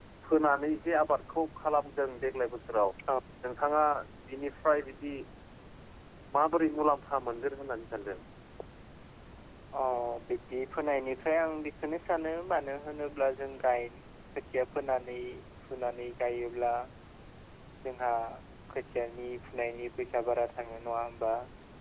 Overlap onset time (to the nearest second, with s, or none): none